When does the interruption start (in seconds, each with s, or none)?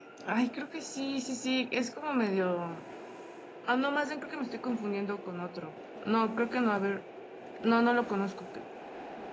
none